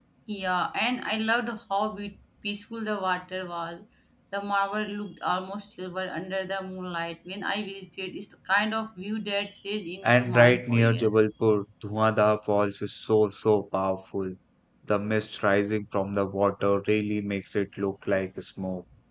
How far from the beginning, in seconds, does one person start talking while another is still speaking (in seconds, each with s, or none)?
10.0 s